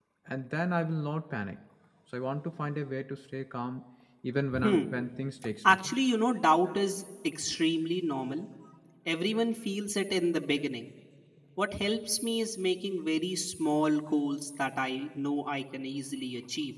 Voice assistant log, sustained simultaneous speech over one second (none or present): none